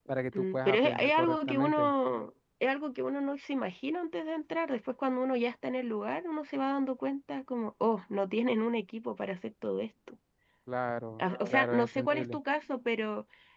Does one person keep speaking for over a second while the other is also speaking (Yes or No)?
Yes